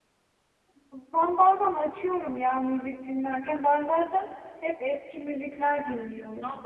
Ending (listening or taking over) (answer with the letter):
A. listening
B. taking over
B